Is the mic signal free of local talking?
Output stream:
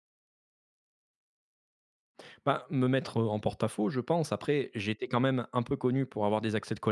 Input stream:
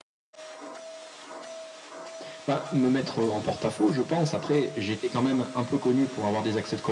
Yes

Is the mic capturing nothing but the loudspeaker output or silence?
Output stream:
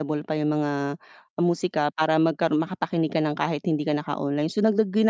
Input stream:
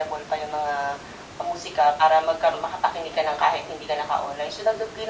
Yes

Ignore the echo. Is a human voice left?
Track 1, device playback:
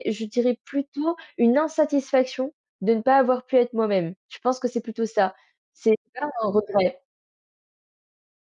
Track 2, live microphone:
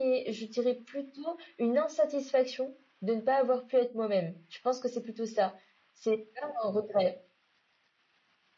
No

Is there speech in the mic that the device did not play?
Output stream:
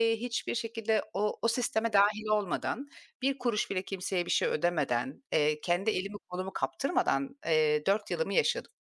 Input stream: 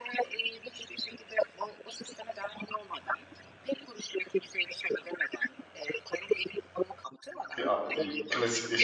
Yes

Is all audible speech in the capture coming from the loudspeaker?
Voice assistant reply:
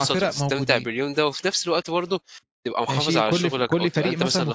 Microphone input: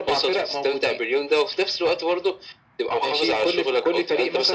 Yes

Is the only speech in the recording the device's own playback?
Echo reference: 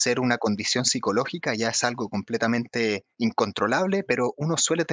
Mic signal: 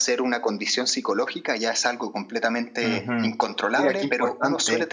No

